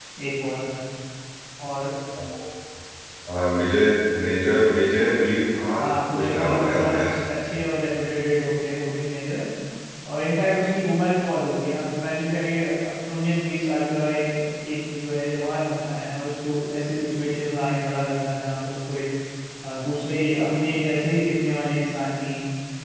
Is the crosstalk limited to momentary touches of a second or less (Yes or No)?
No